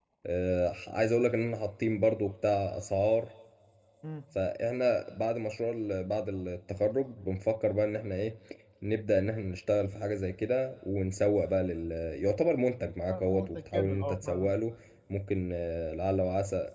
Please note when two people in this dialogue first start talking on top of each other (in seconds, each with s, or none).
13.1 s